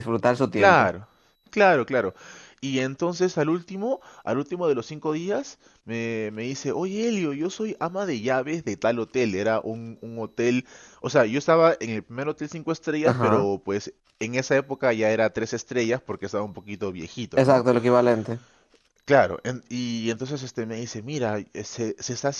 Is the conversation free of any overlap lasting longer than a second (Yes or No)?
Yes